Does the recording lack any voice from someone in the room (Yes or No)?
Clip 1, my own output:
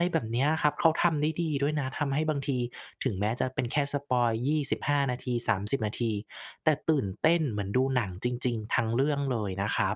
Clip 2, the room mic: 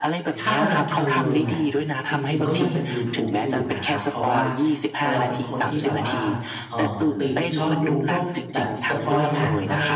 No